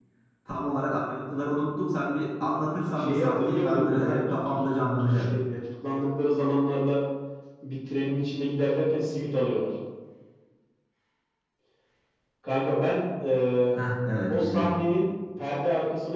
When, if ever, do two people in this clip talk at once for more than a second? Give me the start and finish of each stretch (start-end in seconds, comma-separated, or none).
2.9-5.3